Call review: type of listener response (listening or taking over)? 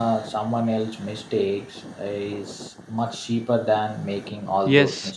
taking over